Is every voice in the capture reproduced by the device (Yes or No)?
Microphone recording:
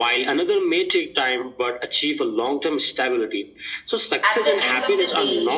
No